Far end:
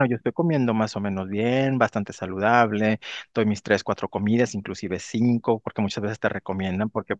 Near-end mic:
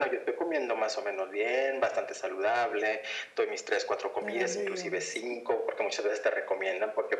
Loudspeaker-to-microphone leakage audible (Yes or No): Yes